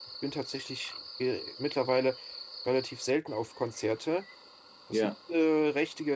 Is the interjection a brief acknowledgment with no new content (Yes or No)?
Yes